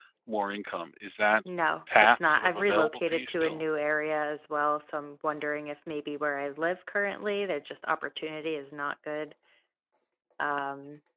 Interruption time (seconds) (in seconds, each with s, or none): 2.0 s